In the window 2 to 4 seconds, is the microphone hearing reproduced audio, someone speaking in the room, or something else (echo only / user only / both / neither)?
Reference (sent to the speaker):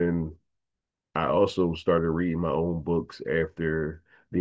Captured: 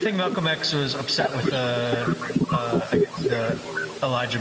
both